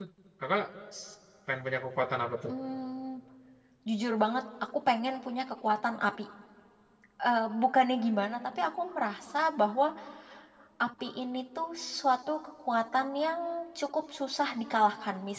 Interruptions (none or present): none